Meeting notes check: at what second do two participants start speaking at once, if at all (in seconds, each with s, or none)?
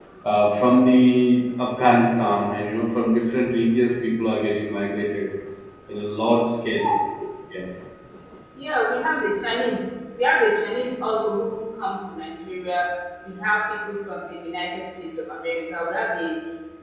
none